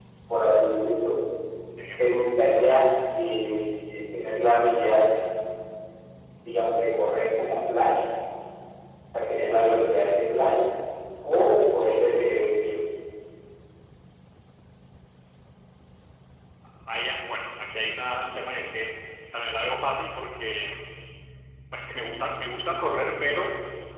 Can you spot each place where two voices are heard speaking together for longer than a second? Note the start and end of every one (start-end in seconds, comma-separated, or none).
none